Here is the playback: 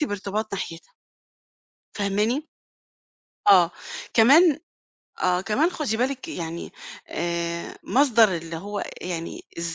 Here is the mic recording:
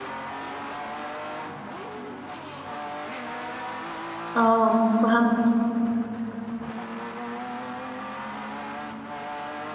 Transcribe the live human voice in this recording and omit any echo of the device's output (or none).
آه فهمت،